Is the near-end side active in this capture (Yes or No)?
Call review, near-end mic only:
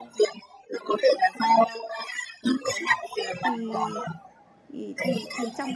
Yes